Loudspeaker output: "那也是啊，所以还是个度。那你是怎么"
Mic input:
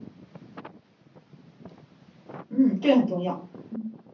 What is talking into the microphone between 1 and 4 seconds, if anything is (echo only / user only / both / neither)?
user only